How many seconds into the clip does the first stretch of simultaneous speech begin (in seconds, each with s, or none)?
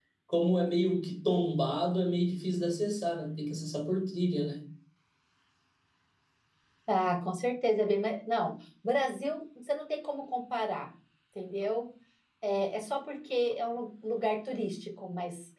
none